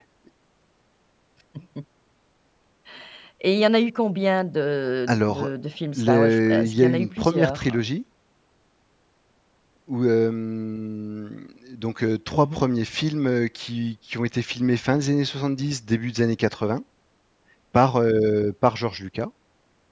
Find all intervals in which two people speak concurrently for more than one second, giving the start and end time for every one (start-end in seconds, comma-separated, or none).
6.0-7.8